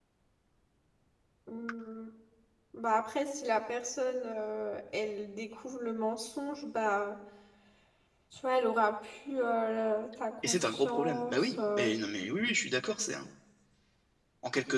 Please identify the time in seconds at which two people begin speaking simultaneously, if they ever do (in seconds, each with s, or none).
10.4 s